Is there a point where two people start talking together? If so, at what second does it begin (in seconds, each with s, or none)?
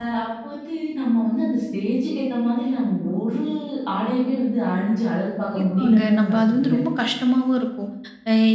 5.6 s